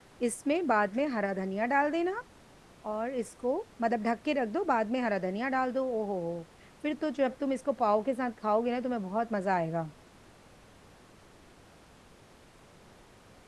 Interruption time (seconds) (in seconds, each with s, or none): none